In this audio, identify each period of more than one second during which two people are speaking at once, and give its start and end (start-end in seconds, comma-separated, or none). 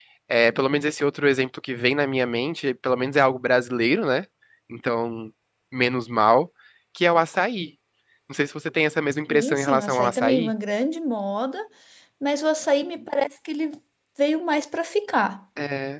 9.3-10.5